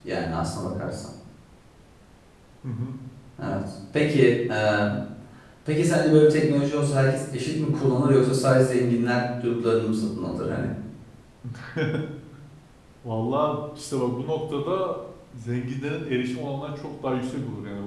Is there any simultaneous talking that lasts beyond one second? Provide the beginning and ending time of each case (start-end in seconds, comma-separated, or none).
none